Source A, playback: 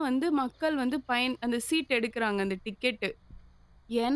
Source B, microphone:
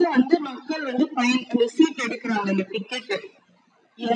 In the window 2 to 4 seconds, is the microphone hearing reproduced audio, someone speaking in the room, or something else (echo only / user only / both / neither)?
echo only